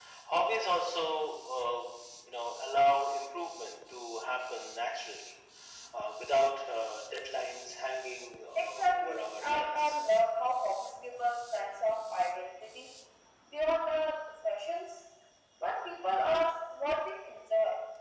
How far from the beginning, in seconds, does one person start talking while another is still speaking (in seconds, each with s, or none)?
8.6 s